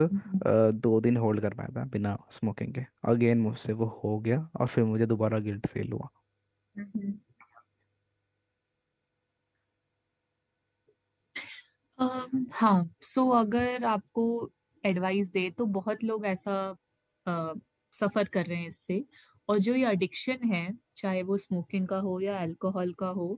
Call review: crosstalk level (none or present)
none